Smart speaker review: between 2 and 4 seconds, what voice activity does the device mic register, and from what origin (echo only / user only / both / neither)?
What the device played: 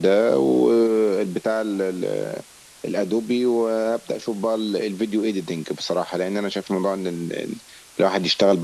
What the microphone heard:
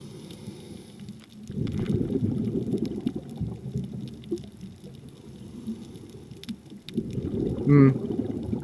neither